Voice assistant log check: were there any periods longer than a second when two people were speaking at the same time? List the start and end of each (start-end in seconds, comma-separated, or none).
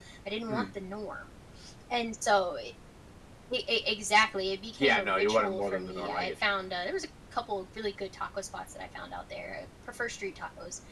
4.8-6.4